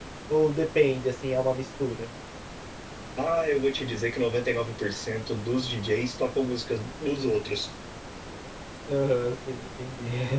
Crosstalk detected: No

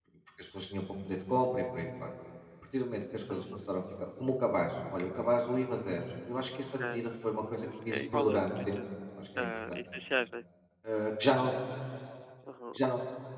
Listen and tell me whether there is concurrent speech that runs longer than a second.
Yes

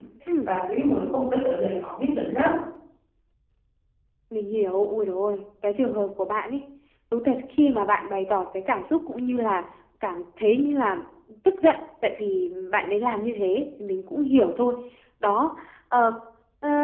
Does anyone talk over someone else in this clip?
No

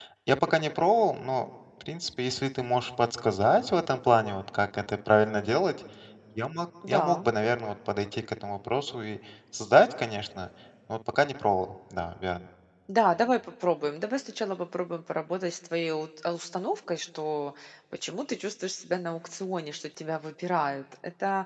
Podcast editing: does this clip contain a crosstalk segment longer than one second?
No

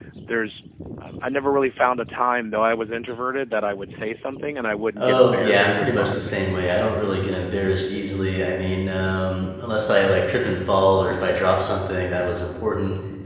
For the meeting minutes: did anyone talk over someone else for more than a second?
Yes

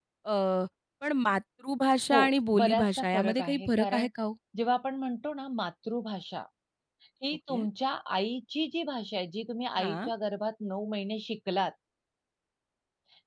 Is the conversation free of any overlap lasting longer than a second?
No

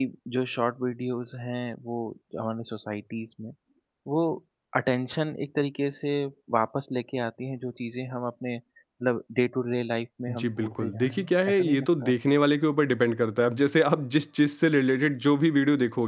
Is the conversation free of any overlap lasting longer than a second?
No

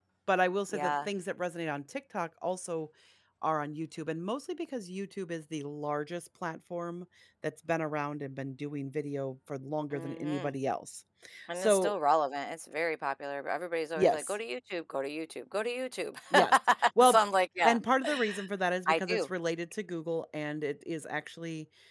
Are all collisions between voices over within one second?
Yes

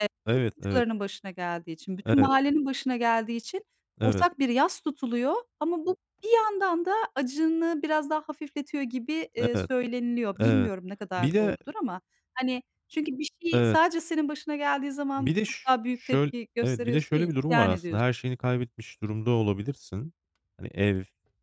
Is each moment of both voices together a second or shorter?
No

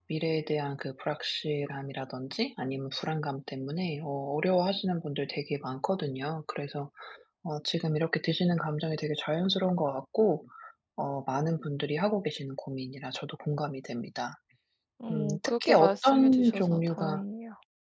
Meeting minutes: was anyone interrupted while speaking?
Yes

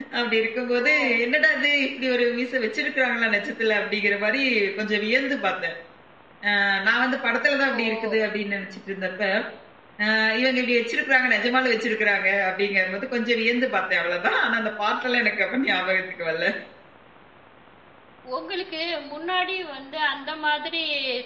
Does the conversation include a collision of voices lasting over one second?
No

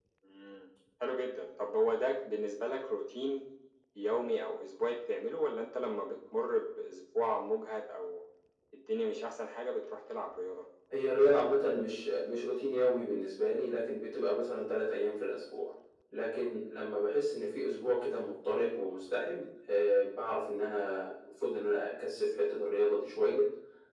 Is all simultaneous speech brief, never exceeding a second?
Yes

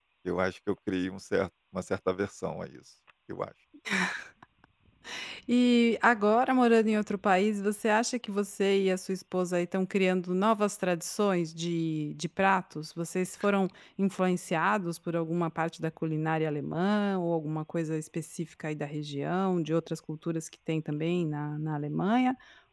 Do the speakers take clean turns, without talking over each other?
Yes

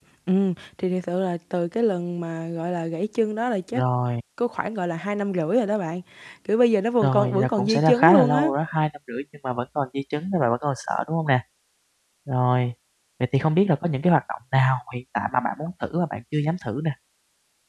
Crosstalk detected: Yes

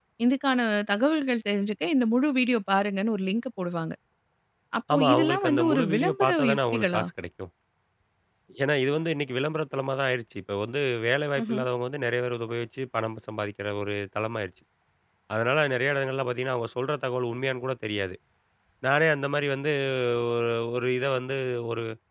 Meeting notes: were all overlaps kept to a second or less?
No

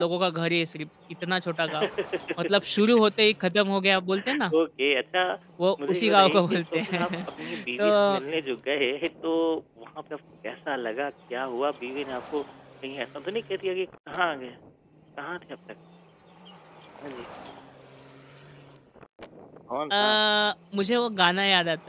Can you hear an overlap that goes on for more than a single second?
Yes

